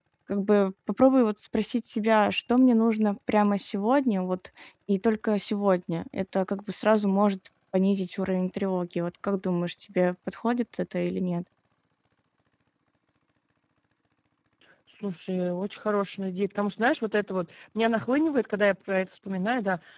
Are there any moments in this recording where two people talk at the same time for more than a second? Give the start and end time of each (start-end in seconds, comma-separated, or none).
none